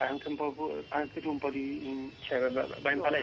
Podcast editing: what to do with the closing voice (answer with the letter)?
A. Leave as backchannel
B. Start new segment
B